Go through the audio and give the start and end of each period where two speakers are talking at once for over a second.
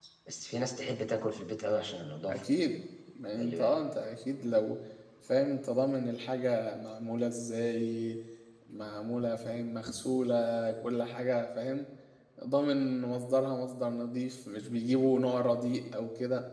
none

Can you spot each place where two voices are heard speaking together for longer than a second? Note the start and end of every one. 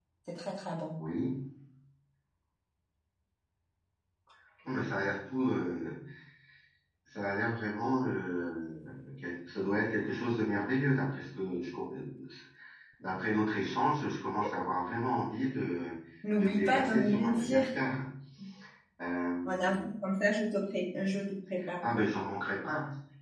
16.3-17.6

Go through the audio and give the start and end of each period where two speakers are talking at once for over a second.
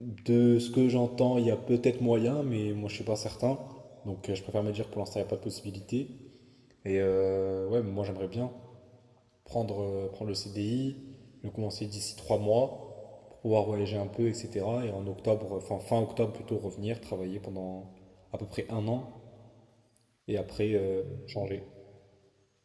none

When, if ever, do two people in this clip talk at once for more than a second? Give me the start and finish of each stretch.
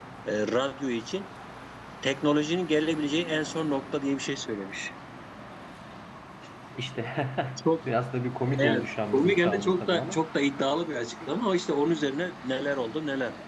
8.6-10.2

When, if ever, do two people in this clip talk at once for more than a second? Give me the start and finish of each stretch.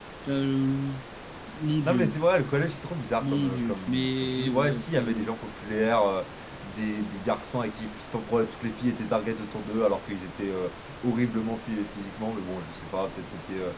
3.2-5.3

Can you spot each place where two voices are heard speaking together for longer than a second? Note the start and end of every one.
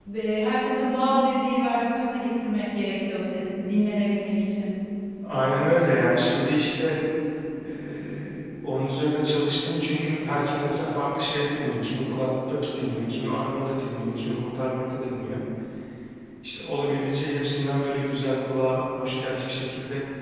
none

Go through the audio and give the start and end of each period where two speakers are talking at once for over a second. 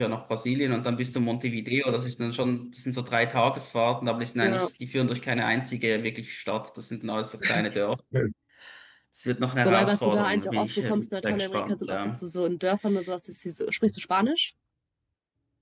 9.7-12.2

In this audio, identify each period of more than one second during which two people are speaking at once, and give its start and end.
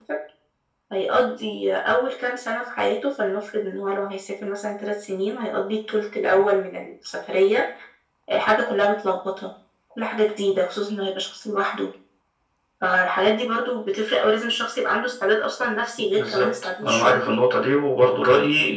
16.0-17.2

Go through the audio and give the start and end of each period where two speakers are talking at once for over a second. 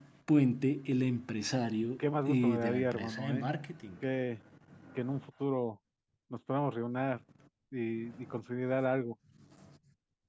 2.0-3.5

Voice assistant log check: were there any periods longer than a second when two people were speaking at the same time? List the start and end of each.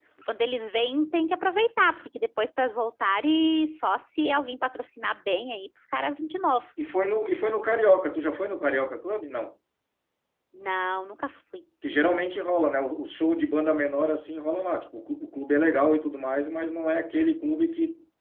none

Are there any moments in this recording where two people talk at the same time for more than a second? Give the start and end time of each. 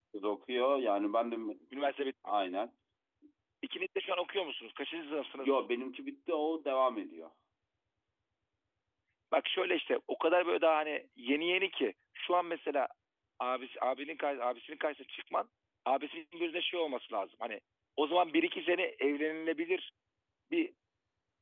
none

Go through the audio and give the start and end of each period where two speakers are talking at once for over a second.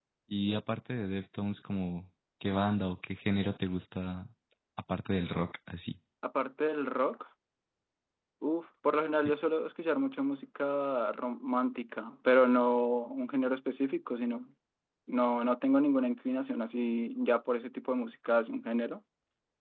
none

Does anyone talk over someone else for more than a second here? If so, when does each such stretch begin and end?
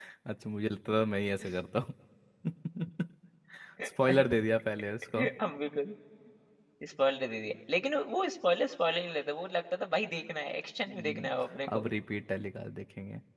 none

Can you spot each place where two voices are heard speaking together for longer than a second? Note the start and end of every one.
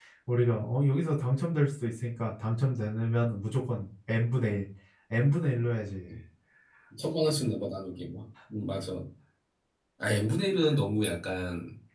none

